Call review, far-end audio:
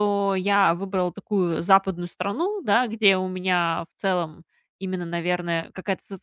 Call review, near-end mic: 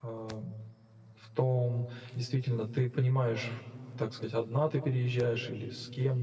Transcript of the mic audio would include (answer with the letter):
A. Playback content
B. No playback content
B